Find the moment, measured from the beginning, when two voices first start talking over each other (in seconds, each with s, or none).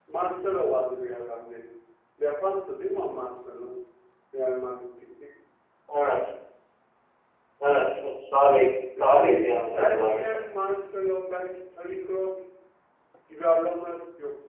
9.0 s